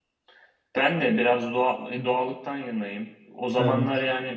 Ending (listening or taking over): listening